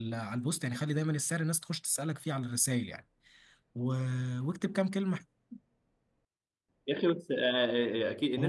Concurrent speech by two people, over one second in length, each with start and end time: none

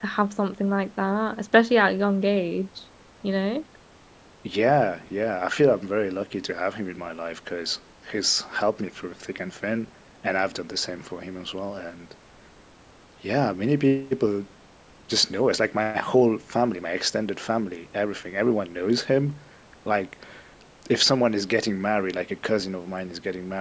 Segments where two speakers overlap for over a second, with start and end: none

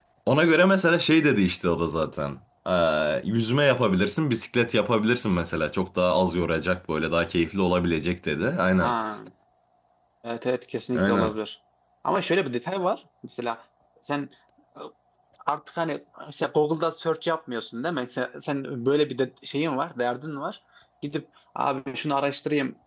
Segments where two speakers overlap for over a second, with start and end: none

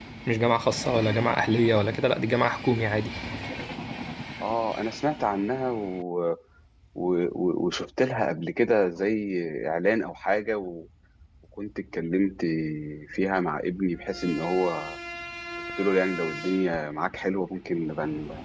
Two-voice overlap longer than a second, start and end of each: none

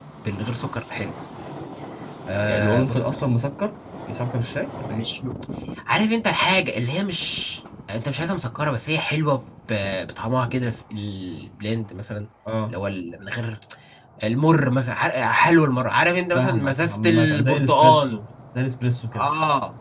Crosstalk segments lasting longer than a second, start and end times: 16.3-18.2

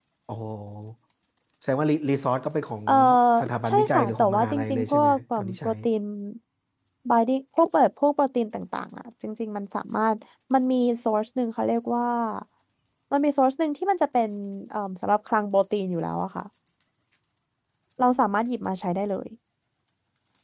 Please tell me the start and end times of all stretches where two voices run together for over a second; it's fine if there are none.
3.7-5.7

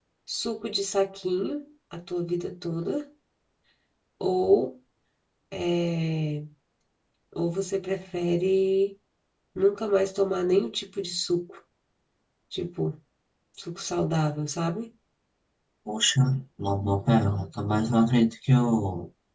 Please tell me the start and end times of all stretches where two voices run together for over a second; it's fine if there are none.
none

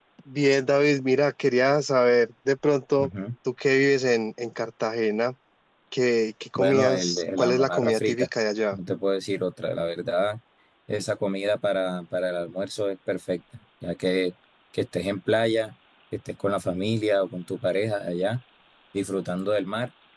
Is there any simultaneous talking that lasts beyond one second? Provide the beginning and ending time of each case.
6.6-8.3

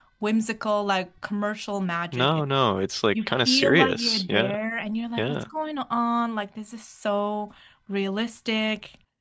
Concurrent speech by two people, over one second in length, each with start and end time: 3.3-4.5

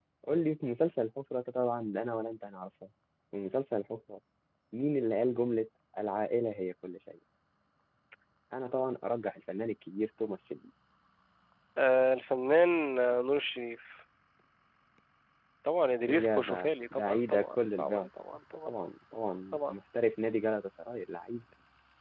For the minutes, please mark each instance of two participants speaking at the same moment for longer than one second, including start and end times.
16.1-18.1

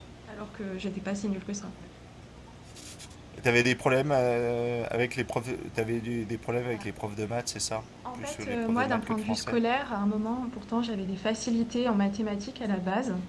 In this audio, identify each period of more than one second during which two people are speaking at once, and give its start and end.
8.1-9.6

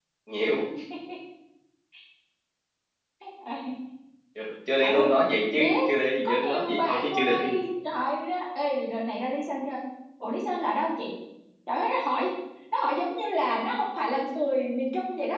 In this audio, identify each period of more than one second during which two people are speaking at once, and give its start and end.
6.2-7.5

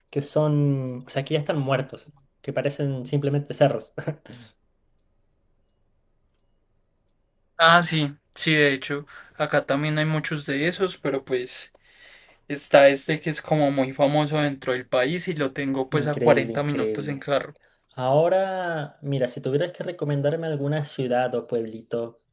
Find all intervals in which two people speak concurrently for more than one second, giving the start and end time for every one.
15.9-17.2

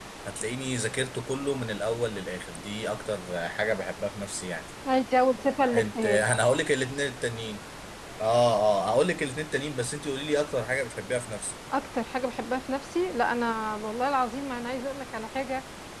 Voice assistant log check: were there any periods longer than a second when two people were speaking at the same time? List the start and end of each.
none

